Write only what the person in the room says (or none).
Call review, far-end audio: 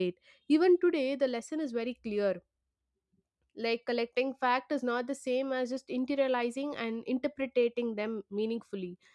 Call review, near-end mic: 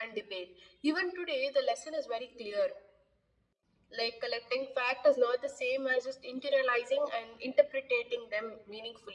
none